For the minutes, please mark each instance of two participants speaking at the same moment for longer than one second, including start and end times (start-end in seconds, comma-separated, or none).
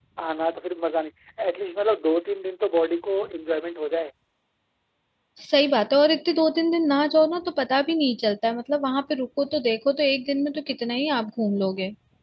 none